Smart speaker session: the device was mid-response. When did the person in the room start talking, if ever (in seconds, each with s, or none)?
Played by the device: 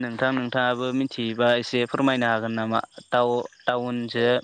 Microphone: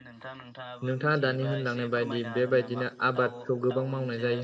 0.9 s